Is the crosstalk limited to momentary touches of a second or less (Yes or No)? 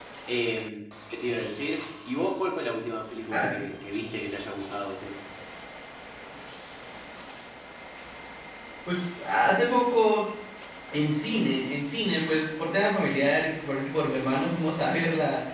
Yes